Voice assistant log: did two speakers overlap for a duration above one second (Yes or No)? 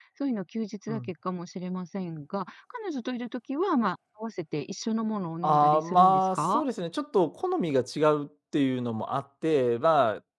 Yes